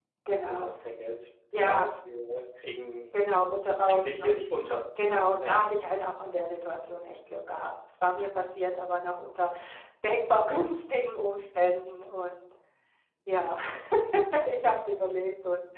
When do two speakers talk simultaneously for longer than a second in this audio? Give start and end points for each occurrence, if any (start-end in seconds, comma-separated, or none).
none